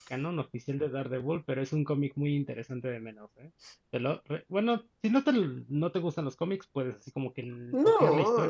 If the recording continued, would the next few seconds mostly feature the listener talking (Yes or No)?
Yes